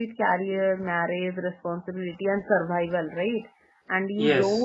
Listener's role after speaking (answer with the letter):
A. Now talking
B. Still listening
B